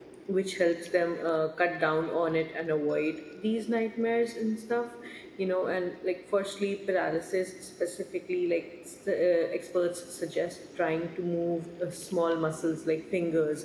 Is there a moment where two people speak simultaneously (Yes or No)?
No